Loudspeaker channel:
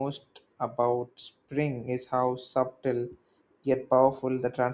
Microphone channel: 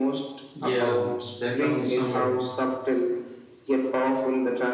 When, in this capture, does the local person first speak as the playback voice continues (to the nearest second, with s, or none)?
1 s